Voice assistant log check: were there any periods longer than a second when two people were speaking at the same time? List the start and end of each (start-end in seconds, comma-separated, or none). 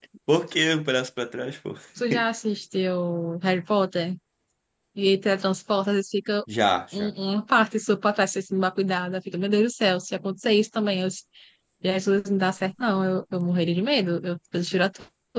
none